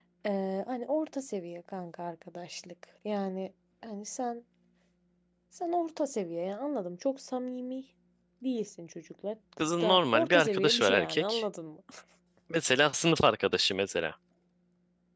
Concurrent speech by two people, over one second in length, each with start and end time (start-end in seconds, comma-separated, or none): 9.6-11.4